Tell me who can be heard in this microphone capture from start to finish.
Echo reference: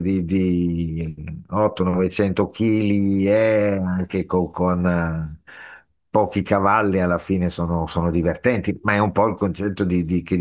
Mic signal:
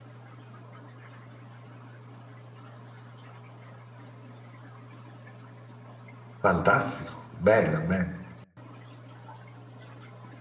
user only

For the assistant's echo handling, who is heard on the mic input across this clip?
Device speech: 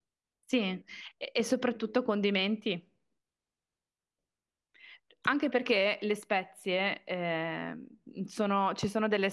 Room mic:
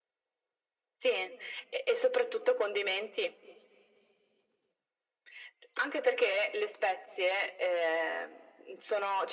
echo only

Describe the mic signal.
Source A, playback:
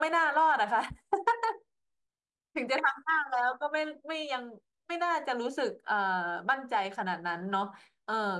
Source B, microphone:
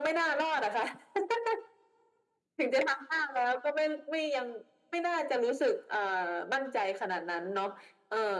echo only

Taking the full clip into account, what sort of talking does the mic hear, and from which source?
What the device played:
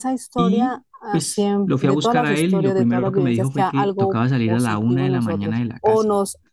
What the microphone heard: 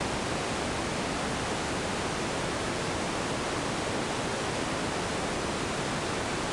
neither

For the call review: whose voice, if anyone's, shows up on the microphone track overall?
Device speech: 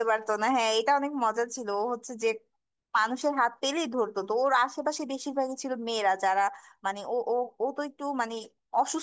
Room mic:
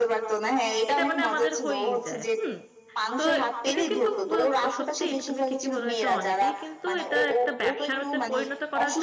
both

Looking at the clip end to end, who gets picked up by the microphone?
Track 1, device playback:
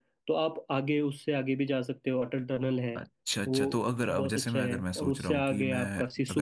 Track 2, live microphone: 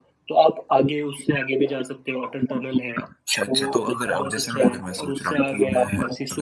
echo only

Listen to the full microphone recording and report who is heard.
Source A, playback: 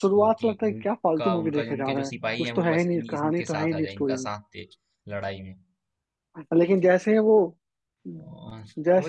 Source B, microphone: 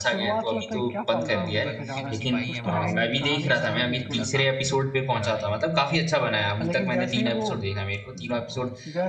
both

